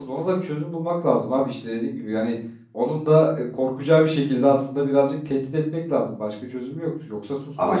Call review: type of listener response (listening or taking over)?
taking over